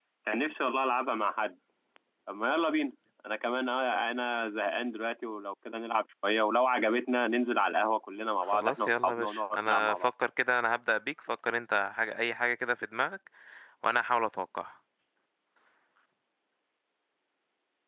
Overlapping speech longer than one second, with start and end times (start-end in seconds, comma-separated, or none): 8.4-10.1